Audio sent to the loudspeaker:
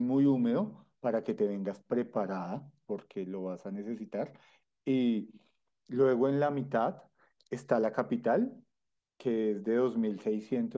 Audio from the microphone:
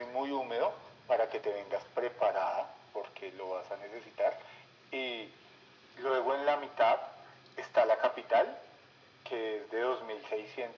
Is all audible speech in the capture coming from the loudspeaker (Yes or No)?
Yes